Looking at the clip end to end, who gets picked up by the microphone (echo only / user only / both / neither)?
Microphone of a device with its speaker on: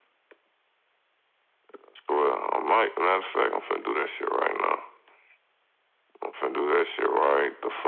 echo only